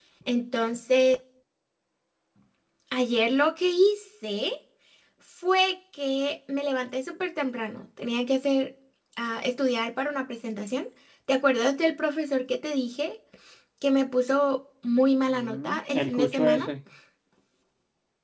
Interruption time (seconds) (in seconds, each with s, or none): 15.3 s